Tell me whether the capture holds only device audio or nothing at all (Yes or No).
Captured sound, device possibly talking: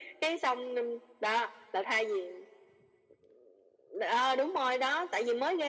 Yes